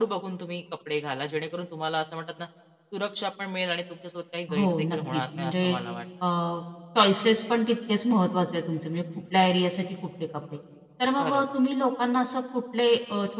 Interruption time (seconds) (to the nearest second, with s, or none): 5 s